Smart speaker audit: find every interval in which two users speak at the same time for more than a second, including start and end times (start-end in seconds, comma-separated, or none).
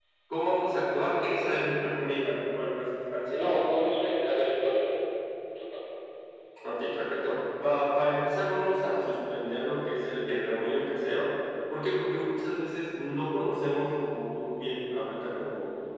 none